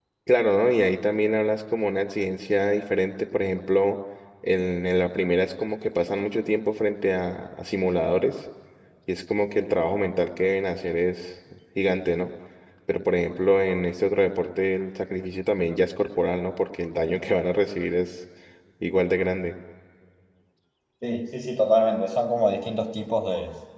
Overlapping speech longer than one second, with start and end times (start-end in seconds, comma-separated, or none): none